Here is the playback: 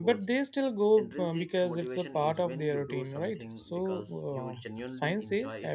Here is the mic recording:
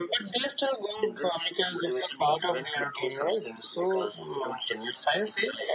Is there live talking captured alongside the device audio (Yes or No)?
No